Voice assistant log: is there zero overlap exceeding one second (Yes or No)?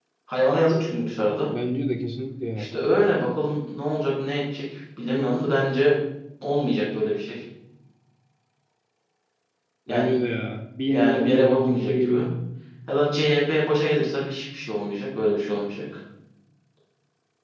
No